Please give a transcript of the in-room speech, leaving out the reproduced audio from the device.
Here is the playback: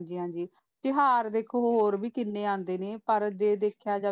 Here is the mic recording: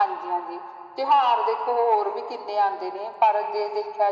none

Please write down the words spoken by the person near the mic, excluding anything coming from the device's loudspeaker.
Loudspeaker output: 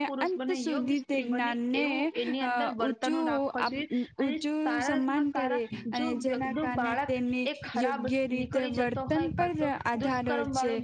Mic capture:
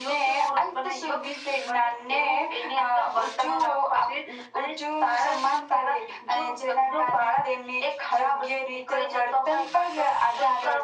none

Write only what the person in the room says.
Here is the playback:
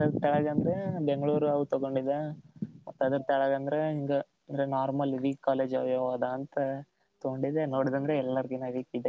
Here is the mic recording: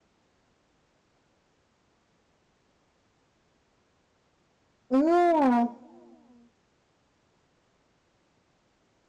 ಹ್ಮ್

